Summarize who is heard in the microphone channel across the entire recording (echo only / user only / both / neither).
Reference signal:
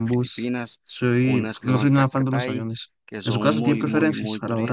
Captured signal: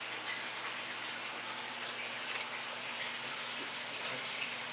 neither